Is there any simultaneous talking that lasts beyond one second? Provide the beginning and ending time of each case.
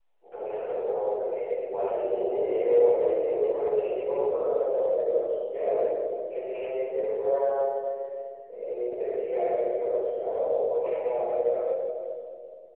1.8-4.0

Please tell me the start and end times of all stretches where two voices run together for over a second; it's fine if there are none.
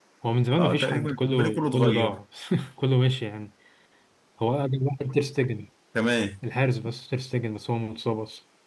0.6-2.2

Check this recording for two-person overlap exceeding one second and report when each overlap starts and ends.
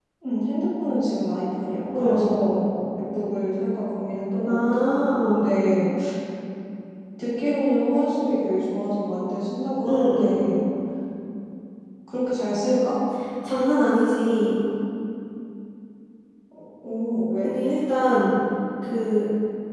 none

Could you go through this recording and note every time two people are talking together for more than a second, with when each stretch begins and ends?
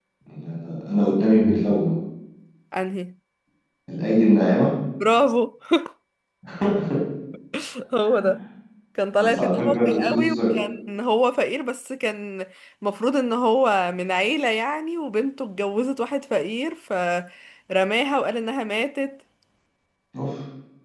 9.2-10.4

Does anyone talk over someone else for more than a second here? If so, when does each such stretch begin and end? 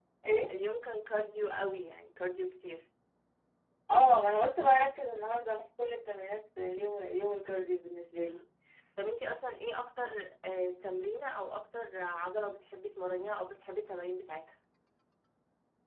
none

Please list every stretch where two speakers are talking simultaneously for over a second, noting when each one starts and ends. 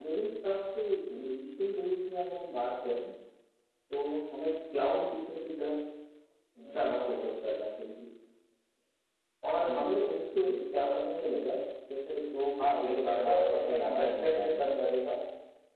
12.6-14.7

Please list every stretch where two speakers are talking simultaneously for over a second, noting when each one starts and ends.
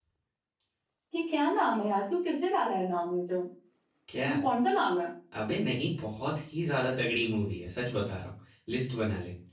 none

